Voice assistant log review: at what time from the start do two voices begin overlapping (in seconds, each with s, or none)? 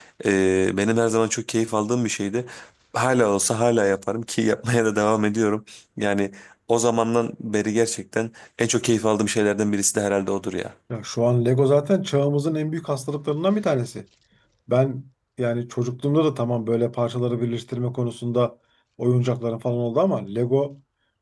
none